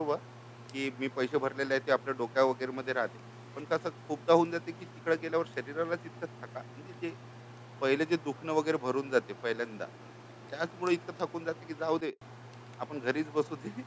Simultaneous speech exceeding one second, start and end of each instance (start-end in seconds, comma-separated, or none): none